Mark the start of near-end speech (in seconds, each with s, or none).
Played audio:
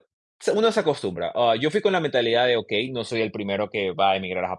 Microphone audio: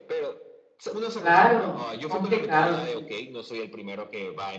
1.2 s